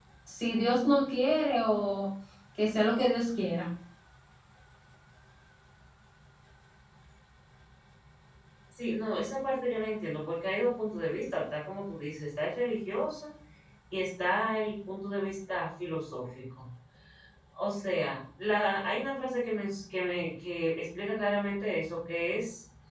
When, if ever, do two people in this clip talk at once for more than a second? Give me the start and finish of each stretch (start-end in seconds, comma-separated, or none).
none